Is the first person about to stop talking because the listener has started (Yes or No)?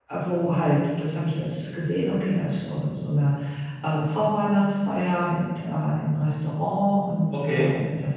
No